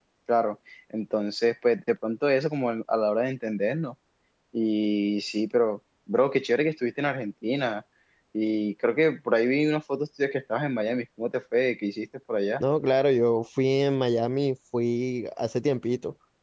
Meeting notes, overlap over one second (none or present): none